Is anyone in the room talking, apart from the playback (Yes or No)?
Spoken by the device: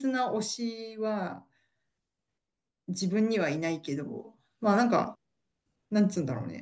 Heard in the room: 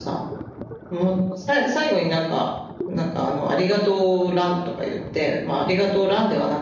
Yes